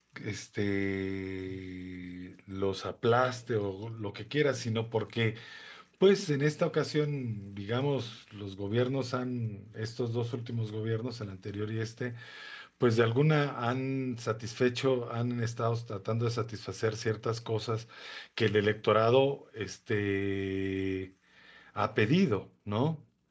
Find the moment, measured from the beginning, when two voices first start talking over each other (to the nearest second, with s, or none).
none